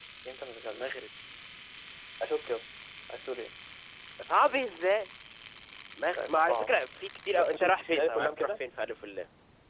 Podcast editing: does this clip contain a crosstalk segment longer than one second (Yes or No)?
Yes